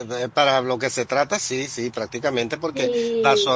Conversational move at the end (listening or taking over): listening